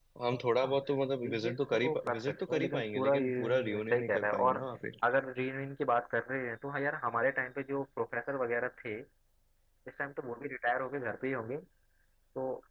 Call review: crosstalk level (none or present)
present